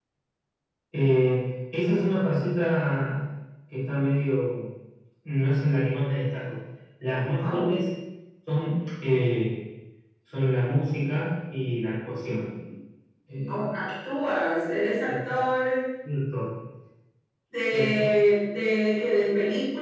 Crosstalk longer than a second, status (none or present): none